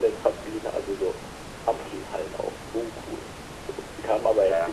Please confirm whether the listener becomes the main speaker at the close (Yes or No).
Yes